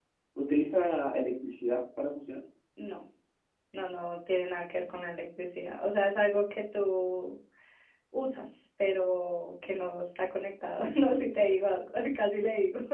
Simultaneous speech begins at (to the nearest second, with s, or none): none